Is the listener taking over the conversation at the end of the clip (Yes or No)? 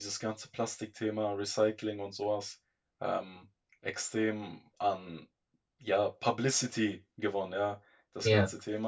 No